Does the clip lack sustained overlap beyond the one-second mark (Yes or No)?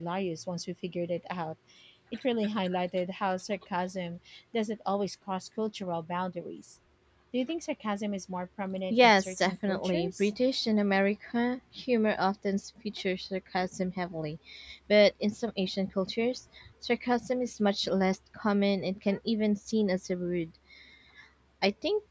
No